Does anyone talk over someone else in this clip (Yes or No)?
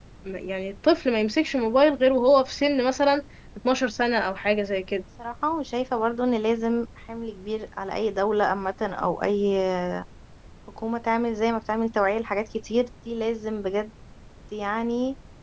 No